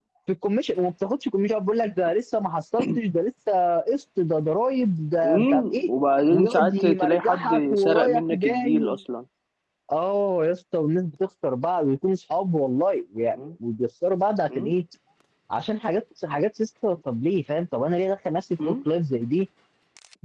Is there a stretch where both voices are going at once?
Yes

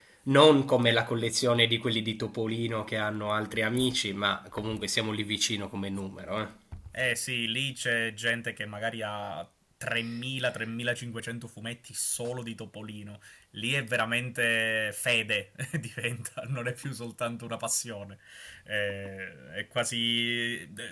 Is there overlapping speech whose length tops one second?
No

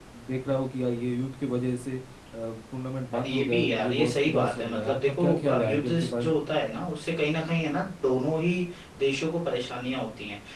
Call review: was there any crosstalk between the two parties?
Yes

